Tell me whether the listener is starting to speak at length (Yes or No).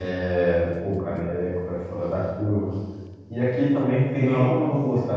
No